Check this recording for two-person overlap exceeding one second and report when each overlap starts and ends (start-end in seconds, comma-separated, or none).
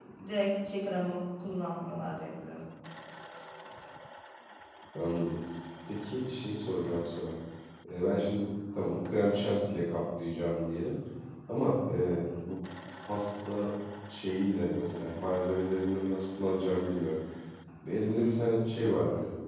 none